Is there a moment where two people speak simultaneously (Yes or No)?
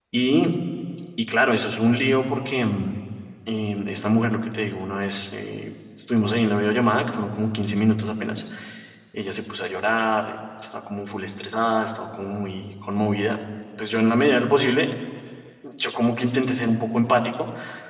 No